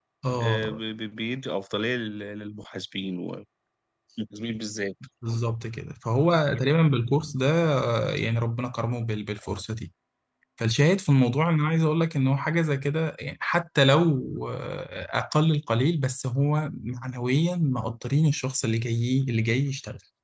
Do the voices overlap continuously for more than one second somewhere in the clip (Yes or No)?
No